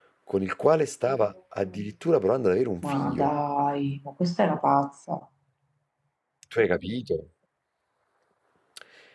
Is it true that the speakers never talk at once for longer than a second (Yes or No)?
Yes